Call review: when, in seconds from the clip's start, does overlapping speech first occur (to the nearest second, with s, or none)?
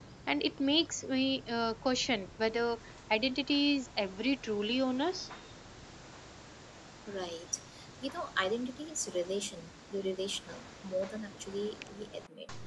none